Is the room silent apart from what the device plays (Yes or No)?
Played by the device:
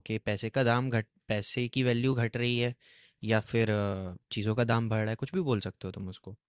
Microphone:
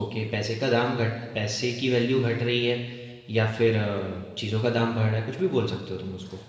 Yes